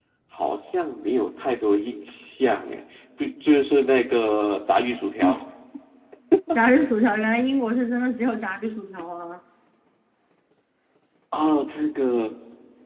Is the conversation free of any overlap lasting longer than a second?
Yes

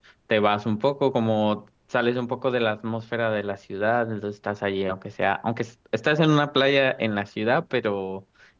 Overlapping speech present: No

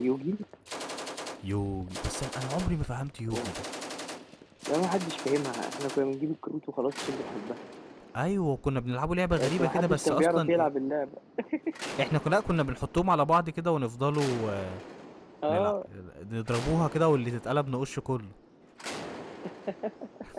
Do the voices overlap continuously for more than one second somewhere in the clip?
Yes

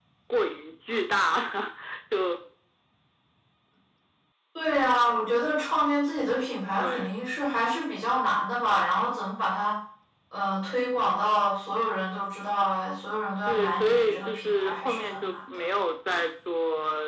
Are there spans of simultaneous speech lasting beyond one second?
Yes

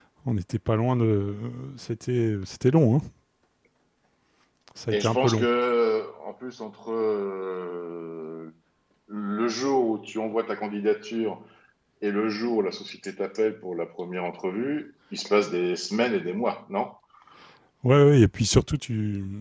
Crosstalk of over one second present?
No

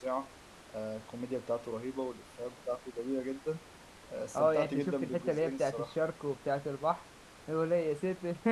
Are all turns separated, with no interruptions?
No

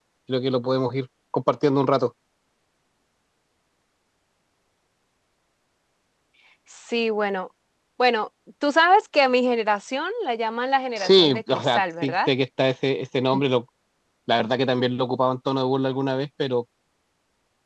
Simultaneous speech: Yes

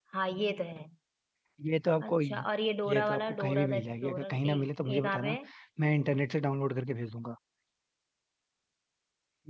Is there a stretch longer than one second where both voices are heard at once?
Yes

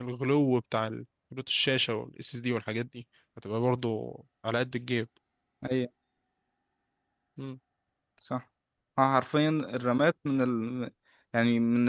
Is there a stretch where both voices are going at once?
No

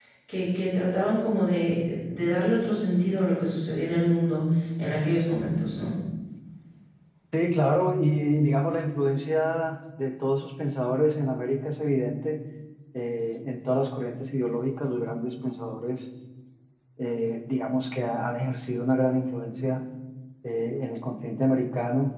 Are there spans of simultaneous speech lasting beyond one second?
No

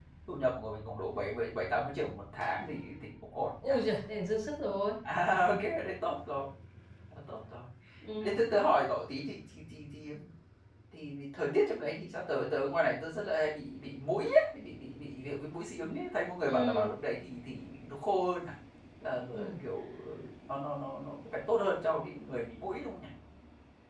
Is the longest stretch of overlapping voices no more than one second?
Yes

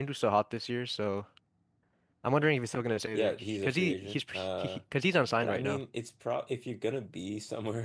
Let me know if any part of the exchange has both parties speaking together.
Yes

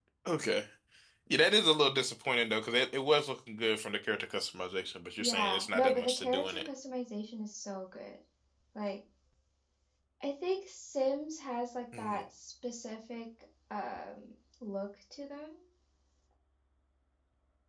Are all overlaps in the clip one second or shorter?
No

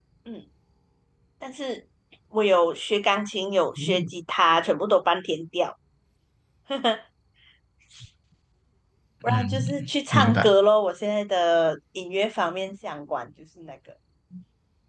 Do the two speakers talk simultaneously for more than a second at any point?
Yes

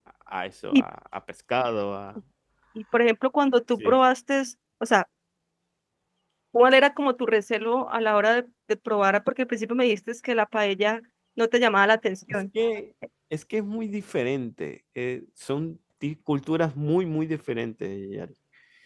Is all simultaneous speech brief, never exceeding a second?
Yes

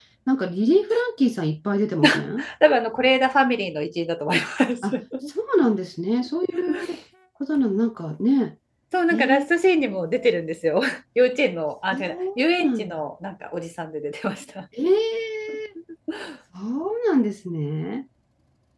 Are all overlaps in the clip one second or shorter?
Yes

